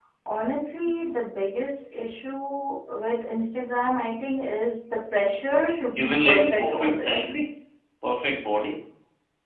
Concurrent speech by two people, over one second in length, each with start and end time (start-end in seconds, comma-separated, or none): 6.0-7.4